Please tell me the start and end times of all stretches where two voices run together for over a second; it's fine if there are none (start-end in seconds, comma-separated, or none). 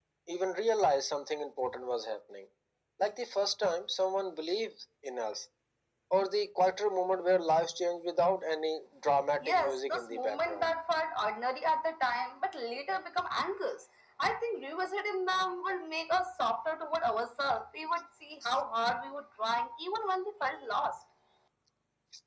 9.5-10.7